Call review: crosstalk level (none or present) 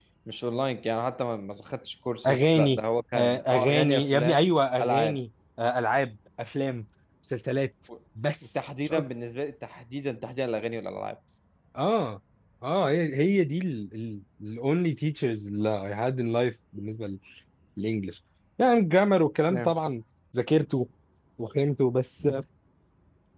present